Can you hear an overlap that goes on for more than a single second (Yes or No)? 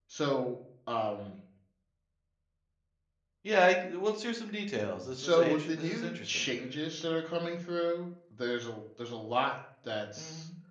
Yes